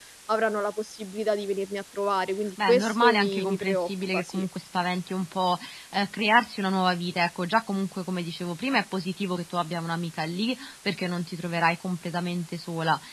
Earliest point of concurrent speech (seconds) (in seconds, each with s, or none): 2.6 s